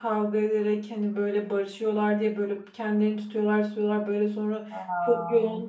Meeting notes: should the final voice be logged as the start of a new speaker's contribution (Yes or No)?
No